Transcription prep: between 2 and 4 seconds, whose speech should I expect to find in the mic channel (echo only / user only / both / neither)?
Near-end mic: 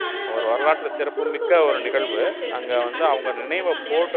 both